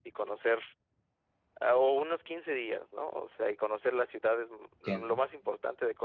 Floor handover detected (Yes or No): No